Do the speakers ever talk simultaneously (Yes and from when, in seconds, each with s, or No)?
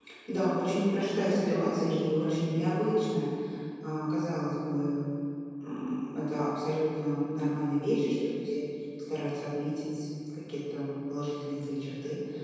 Yes, from 0.9 s